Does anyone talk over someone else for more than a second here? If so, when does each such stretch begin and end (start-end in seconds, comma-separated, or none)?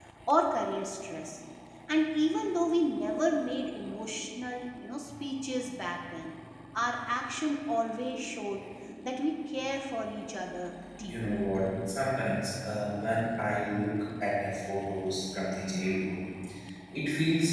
none